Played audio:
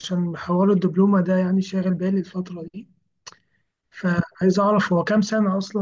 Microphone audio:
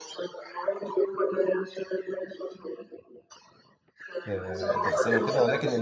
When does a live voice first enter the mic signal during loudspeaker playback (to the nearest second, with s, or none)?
4 s